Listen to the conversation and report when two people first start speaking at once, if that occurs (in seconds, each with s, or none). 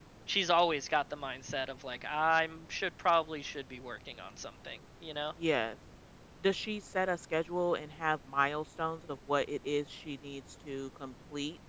none